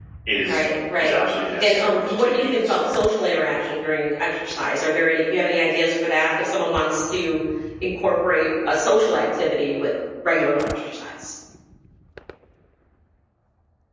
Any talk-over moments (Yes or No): Yes